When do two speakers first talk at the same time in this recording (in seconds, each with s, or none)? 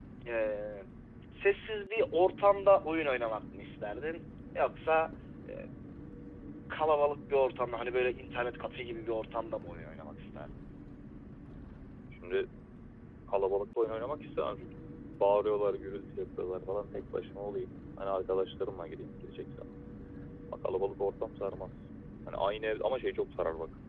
none